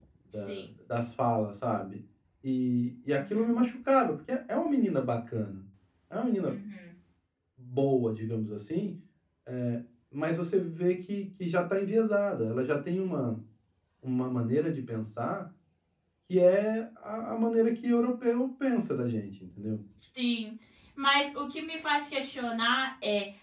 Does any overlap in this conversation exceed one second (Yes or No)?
No